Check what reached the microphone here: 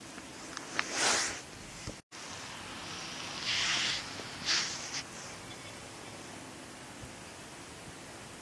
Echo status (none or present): none